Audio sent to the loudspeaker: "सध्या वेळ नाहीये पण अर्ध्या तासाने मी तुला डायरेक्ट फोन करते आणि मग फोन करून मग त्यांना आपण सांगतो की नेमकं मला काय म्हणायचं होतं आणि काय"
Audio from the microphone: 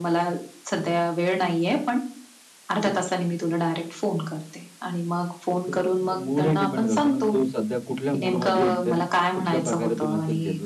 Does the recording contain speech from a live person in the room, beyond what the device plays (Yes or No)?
Yes